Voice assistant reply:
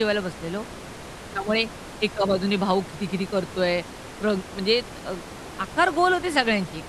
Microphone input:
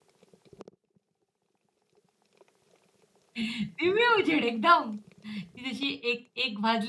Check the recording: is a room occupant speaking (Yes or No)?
Yes